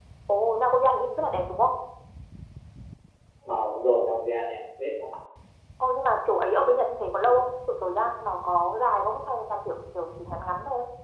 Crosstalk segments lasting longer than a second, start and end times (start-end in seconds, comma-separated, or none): none